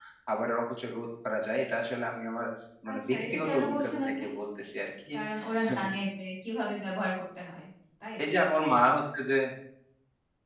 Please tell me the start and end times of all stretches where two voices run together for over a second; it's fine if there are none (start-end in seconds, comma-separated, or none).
2.9-4.2